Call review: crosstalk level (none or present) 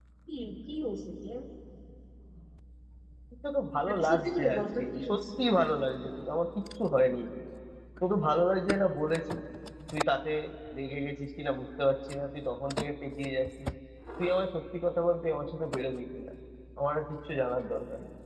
present